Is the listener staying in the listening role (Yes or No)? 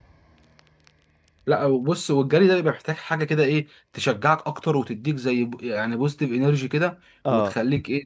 Yes